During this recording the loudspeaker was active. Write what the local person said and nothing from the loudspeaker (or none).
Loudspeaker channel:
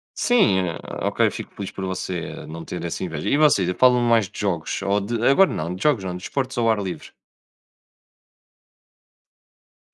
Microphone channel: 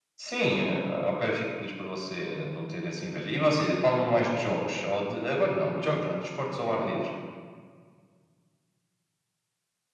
none